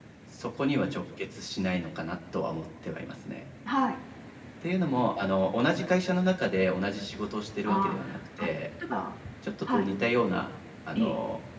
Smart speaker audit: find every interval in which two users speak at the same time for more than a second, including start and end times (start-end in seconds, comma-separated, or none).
none